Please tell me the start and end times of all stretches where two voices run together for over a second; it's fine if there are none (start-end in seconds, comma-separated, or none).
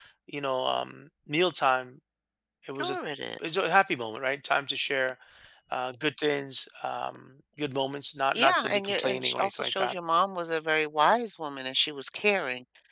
8.3-9.9